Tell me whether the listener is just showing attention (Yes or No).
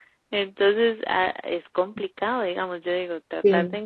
Yes